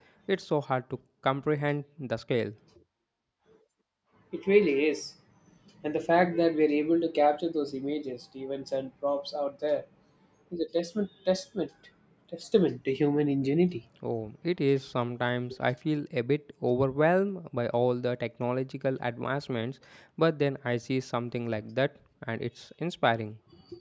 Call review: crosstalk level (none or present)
none